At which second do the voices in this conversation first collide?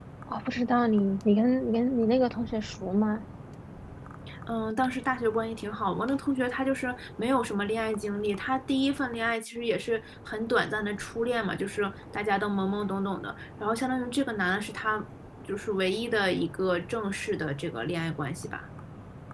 none

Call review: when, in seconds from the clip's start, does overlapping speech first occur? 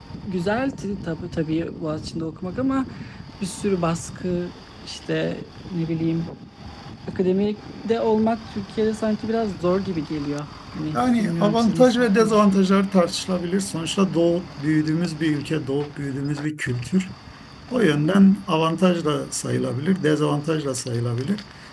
10.9 s

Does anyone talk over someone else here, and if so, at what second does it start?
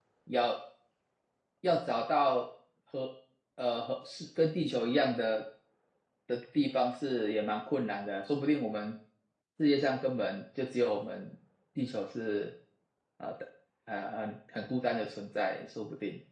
none

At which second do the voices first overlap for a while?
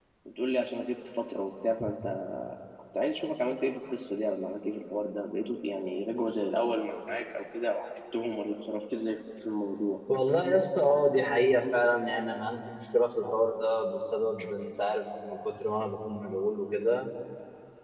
none

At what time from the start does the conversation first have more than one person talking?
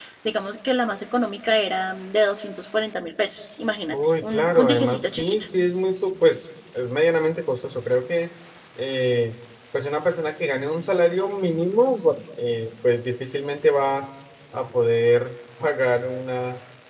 3.9 s

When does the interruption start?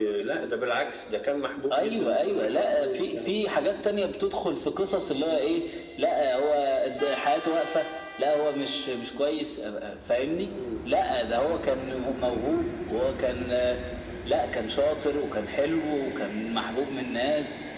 1.7 s

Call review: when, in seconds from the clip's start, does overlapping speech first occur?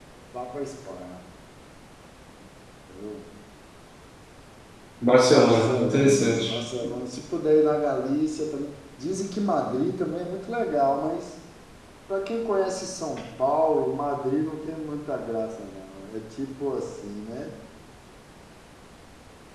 5.3 s

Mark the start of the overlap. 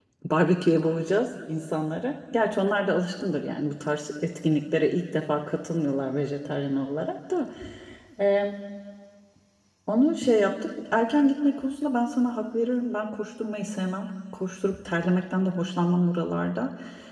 none

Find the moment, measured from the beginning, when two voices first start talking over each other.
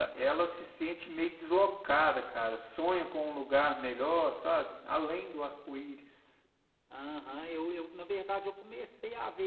none

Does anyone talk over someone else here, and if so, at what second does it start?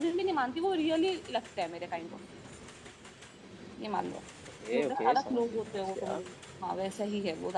4.7 s

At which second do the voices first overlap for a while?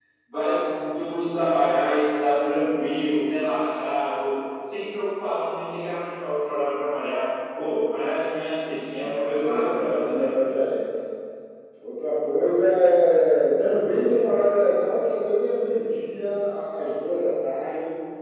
8.9 s

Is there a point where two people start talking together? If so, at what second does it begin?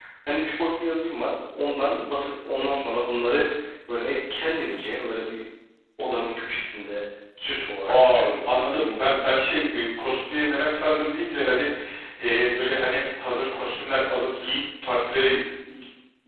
7.9 s

